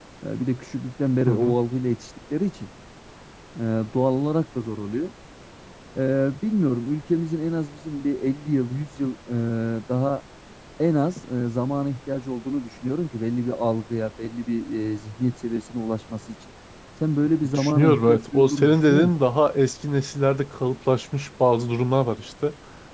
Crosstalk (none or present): present